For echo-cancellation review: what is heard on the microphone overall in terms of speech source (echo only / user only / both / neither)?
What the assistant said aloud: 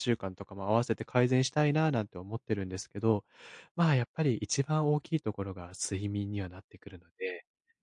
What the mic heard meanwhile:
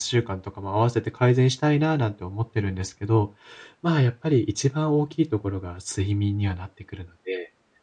echo only